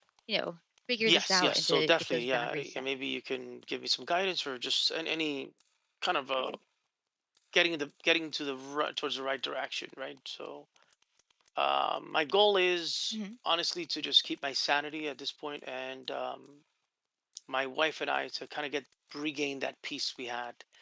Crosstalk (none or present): present